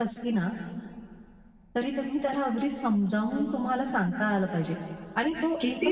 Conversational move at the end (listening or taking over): taking over